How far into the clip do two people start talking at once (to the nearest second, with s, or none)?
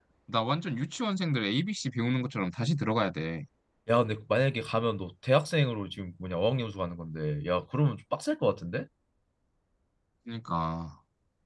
none